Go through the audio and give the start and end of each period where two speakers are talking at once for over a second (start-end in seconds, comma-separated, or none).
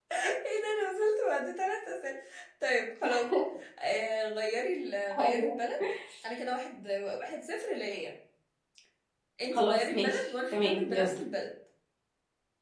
9.5-11.1